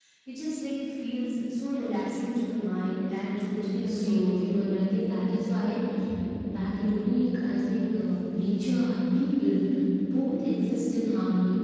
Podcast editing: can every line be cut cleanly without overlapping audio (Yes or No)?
No